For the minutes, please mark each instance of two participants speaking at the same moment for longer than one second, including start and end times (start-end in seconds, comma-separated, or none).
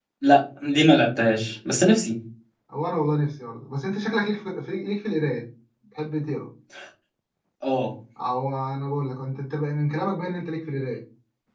none